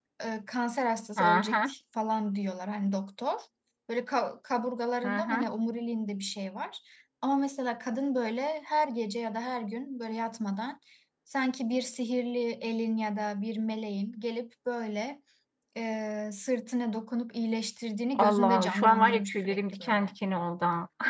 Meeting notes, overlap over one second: present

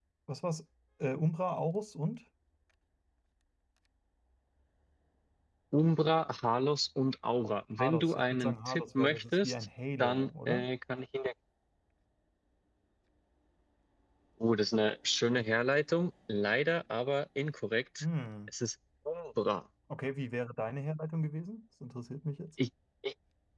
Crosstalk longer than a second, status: present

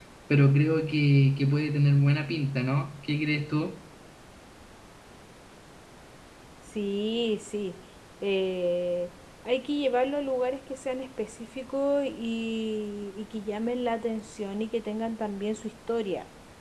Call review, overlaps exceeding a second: none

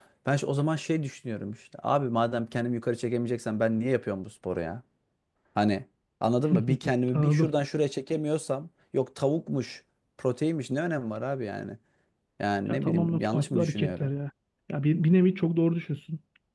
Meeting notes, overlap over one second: present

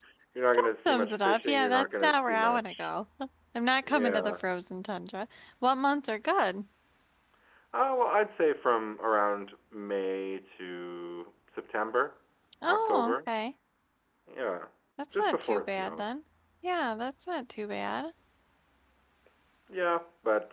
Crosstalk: present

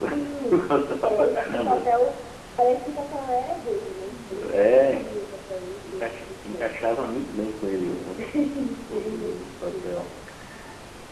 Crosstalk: present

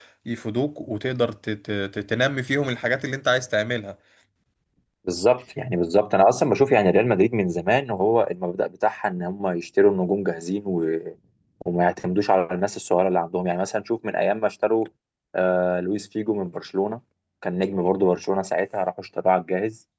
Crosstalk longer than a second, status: none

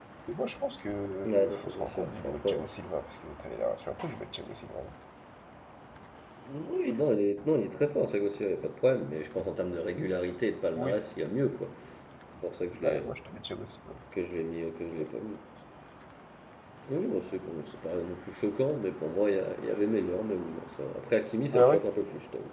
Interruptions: present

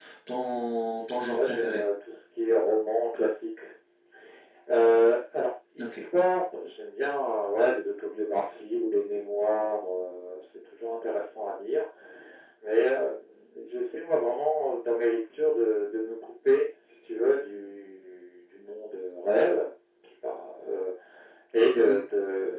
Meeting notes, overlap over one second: none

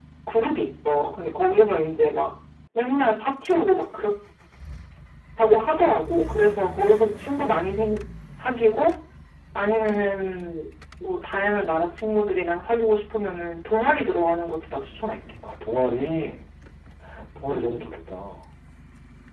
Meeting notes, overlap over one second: none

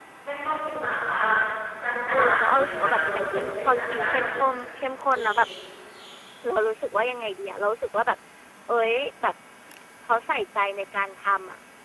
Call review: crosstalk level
present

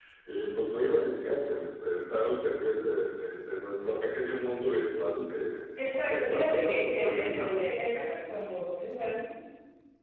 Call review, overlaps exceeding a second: present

